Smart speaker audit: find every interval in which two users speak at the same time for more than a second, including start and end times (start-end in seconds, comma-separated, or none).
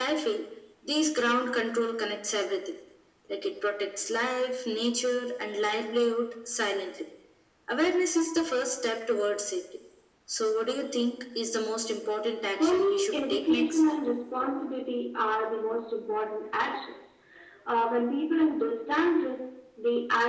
12.6-13.8